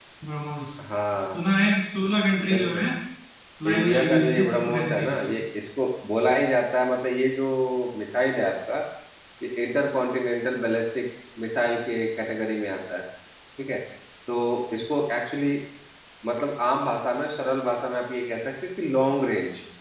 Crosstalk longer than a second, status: present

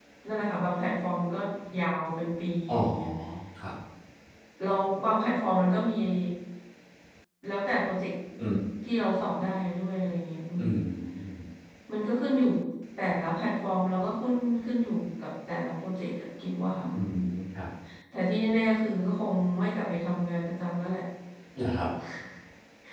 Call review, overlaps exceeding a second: none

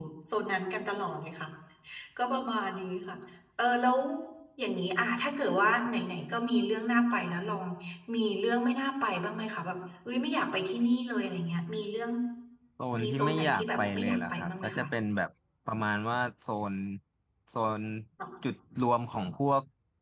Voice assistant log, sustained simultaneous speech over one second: present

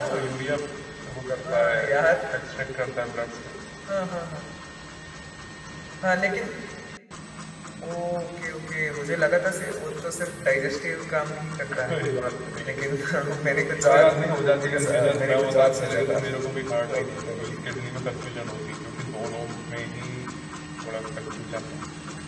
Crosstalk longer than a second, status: present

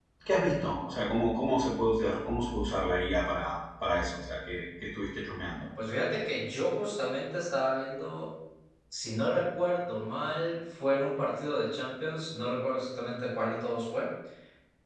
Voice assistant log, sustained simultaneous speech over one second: none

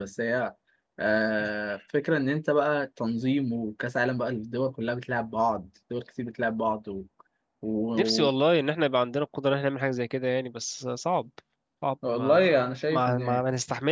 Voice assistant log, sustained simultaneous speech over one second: present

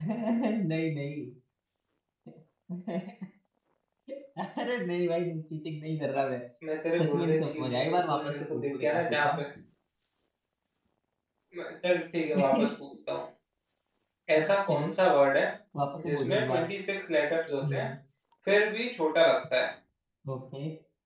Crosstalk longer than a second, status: present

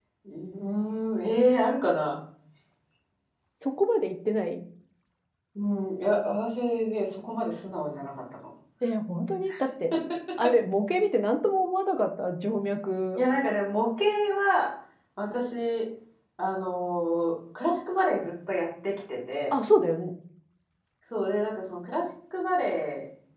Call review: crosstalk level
none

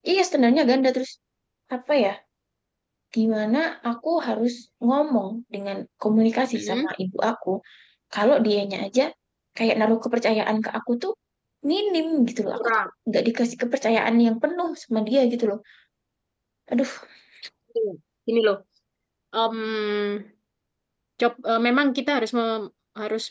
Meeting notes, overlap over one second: none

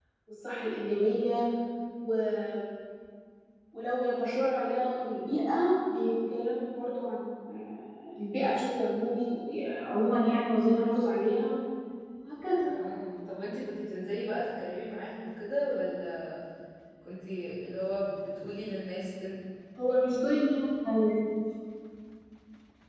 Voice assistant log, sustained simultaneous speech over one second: none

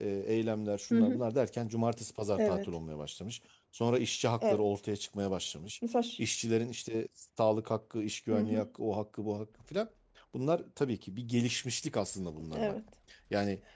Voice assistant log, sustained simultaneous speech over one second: none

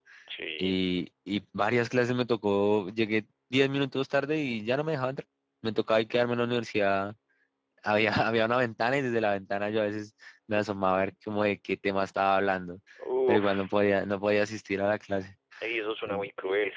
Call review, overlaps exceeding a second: none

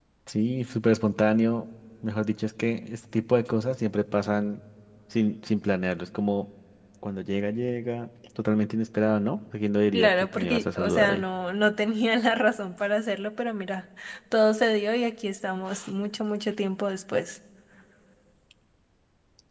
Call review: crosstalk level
present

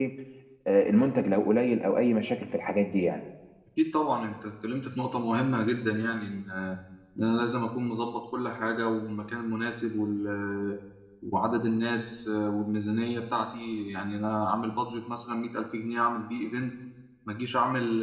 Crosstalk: none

